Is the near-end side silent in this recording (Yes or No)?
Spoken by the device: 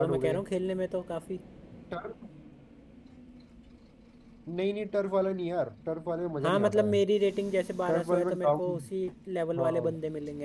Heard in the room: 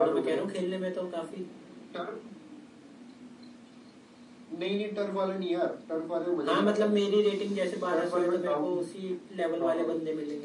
Yes